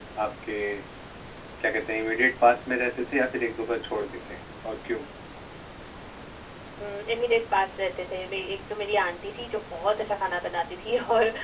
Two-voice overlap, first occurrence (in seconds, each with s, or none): none